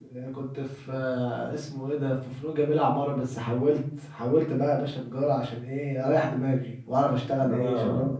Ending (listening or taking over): taking over